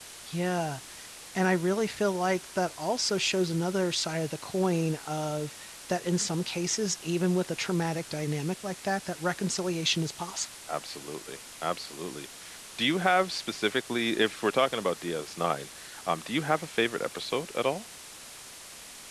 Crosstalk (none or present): none